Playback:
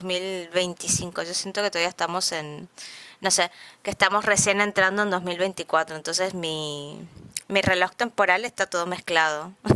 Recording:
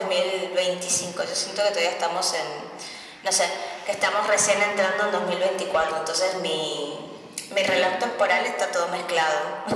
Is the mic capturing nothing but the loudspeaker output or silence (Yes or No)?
Yes